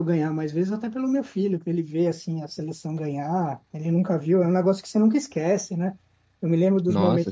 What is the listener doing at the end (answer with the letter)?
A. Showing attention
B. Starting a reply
A